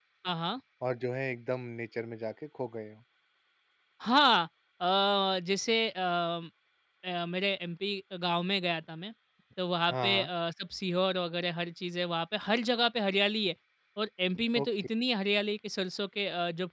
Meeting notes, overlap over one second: none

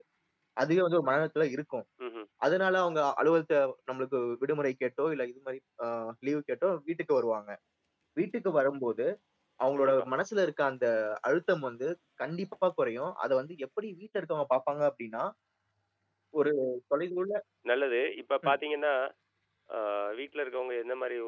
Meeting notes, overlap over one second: none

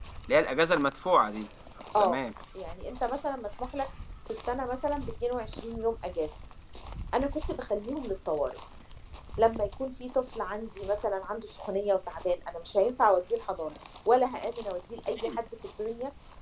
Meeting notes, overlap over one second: none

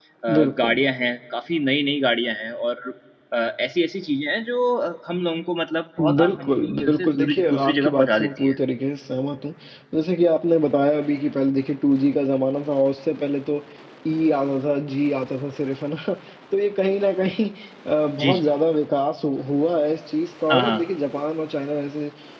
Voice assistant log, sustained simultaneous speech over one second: present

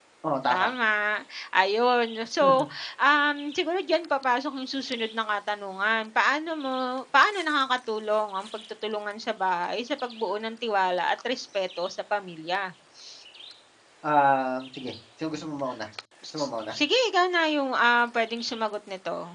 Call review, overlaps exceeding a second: none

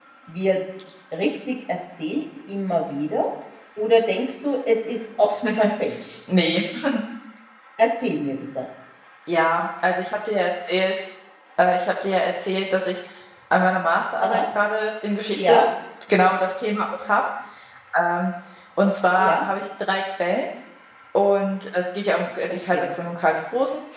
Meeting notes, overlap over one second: none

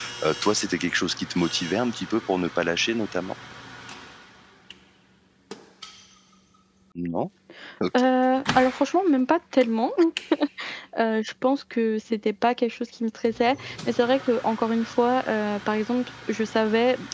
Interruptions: none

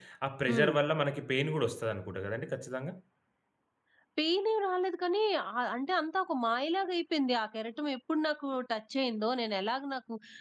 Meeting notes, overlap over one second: none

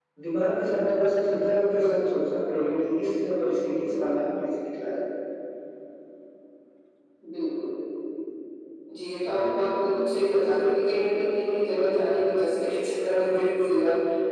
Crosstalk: none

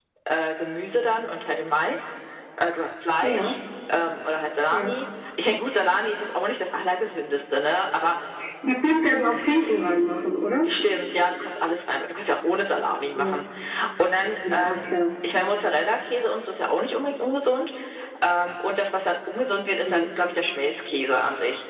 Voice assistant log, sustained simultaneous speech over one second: none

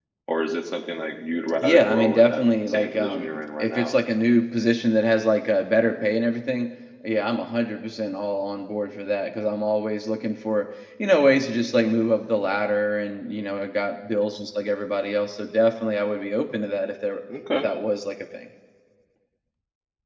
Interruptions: present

